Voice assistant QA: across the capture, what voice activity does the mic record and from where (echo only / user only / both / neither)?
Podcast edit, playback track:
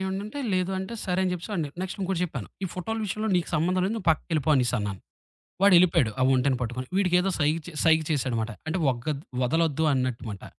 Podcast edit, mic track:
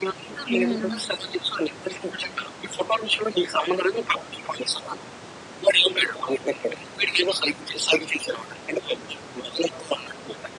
both